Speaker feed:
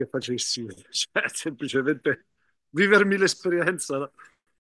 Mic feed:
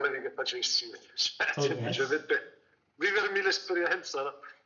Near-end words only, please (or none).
Oh yes,